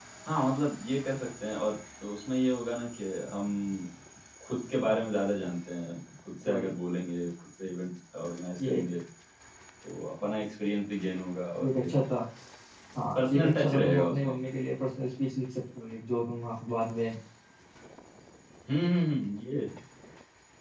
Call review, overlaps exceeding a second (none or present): present